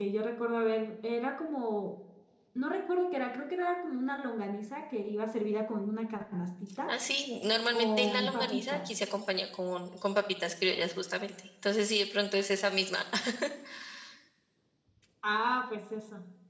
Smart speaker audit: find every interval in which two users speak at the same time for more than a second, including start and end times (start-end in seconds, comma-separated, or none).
7.7-8.9